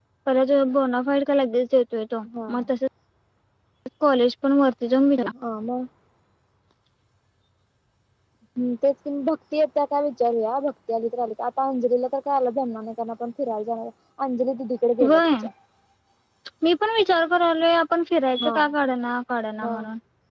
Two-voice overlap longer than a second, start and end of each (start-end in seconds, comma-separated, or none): none